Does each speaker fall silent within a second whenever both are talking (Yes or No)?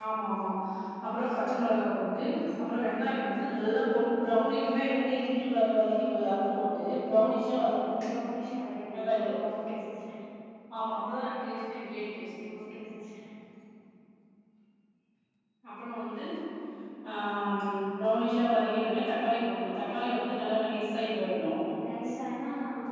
Yes